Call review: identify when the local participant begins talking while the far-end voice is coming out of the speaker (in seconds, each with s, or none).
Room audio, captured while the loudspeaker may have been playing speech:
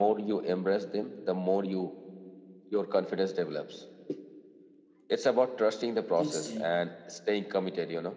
6.1 s